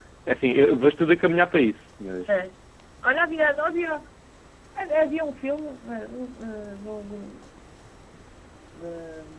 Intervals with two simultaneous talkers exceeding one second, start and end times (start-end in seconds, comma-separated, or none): none